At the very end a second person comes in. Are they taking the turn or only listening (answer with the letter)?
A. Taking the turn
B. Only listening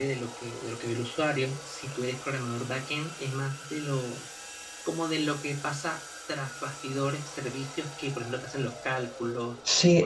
A